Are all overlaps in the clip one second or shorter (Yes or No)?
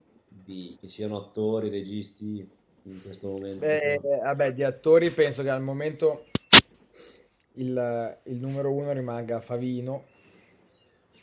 Yes